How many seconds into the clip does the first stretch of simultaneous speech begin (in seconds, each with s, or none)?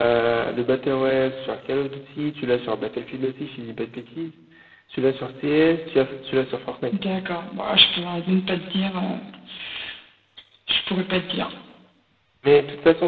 none